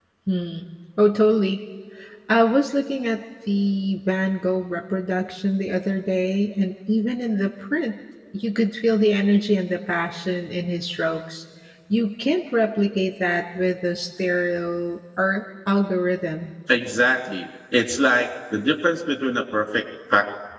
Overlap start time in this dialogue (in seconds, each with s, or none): none